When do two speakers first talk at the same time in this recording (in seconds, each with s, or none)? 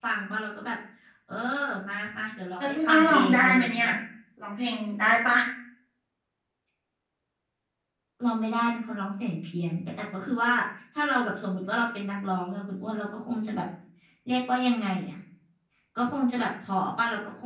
2.6 s